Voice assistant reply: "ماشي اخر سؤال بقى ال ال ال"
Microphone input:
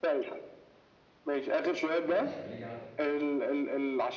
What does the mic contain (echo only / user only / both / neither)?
both